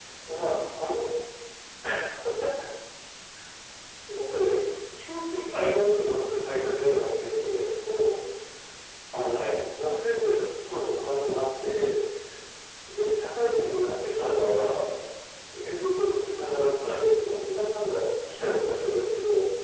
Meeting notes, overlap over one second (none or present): none